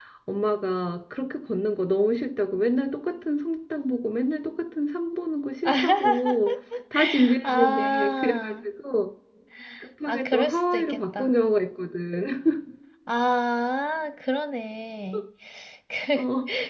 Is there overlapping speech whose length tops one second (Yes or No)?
Yes